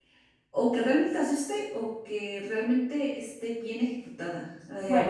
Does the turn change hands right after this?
No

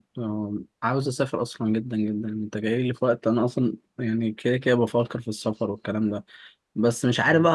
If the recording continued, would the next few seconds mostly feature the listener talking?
No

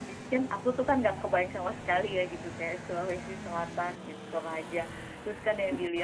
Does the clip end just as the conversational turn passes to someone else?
No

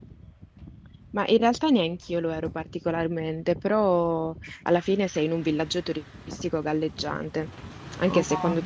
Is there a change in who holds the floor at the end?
No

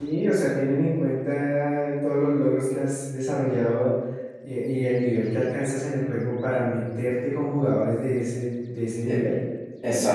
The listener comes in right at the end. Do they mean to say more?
Yes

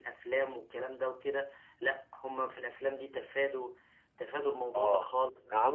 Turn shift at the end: Yes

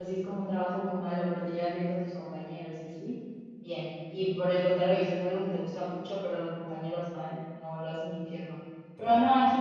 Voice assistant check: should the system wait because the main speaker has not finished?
Yes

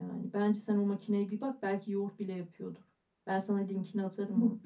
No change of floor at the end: Yes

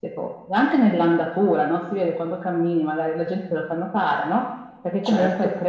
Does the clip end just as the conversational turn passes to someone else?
No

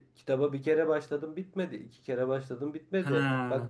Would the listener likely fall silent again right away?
Yes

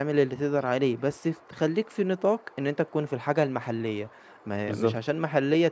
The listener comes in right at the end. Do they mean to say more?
No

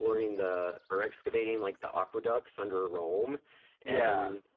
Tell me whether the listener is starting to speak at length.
No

